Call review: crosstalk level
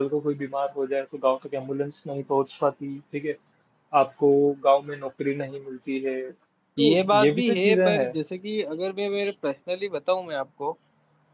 present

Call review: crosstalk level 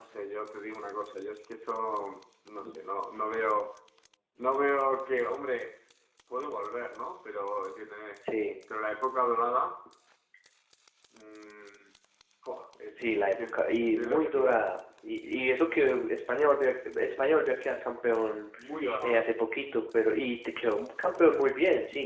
present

